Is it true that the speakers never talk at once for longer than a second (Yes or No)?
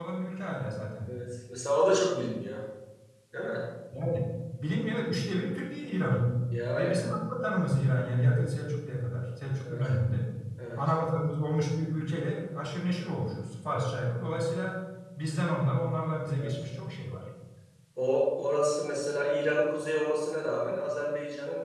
Yes